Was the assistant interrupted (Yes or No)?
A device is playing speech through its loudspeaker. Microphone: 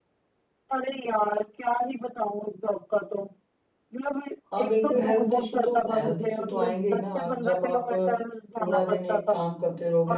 Yes